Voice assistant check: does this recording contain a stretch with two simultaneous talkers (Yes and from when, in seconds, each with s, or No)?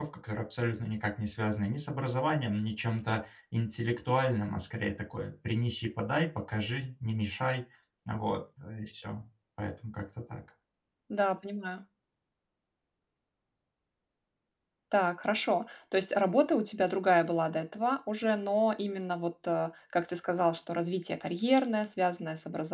No